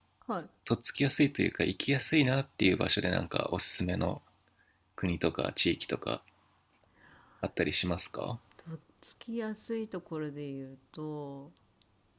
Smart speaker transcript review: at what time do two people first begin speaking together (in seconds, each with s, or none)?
none